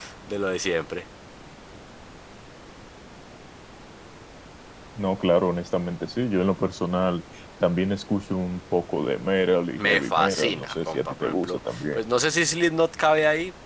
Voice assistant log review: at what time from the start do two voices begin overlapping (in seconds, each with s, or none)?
9.8 s